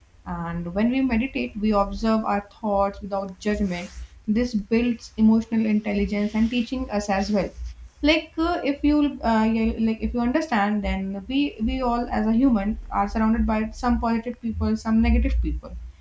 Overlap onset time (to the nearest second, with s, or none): none